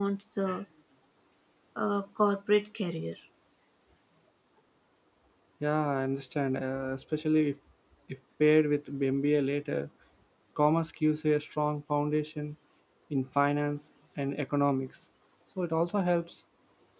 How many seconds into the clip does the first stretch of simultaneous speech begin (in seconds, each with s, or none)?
none